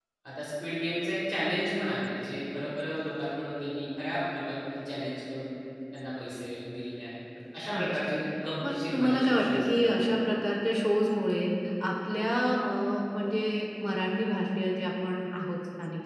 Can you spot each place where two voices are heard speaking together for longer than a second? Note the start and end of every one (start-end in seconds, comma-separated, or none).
8.7-10.1